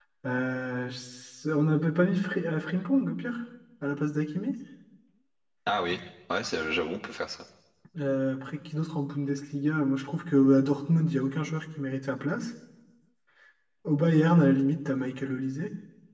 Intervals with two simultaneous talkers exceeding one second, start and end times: none

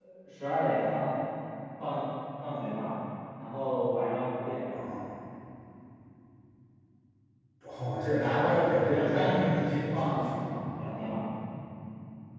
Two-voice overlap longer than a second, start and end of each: 8.2-10.5

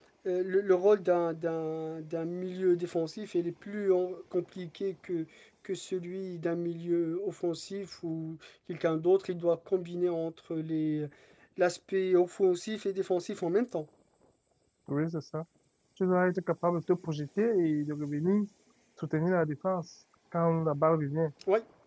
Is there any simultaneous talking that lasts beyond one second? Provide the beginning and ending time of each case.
none

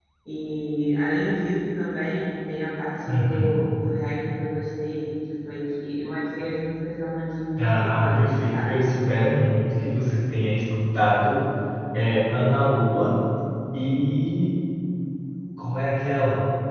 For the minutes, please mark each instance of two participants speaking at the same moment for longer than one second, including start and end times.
7.6-8.9

